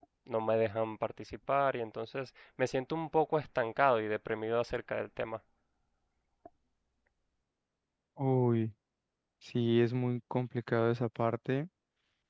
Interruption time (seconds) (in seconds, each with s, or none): none